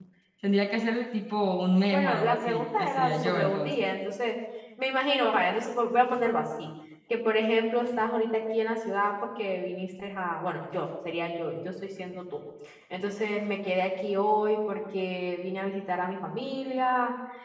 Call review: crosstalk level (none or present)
present